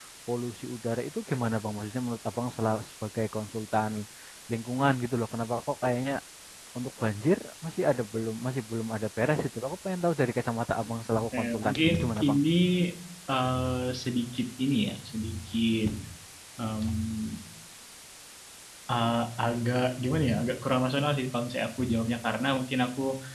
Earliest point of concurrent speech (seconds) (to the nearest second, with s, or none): 11 s